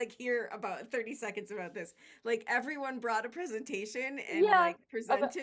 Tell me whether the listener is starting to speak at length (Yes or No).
Yes